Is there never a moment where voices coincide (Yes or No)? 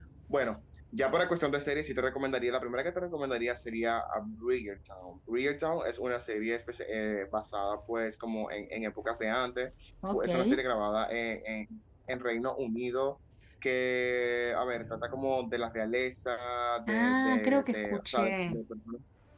No